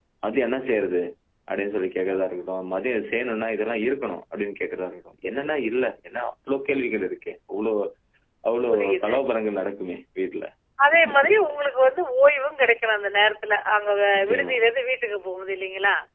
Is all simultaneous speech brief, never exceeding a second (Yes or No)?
Yes